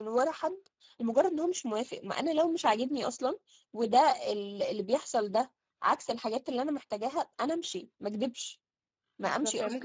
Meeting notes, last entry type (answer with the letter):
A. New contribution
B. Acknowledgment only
A